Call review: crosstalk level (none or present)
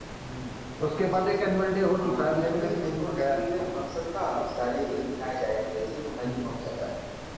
present